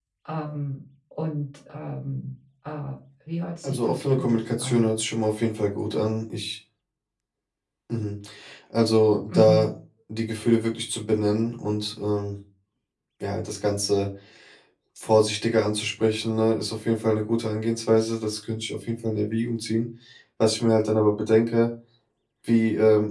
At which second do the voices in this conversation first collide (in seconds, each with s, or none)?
3.6 s